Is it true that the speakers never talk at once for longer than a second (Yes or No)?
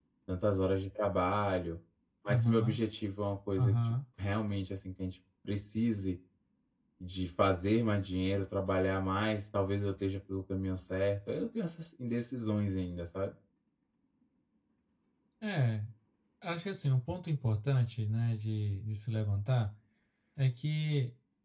Yes